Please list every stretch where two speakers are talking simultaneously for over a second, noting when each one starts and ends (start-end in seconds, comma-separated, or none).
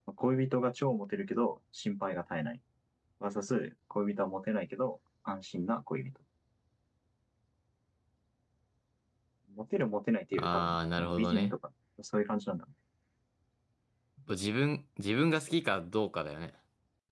10.3-11.5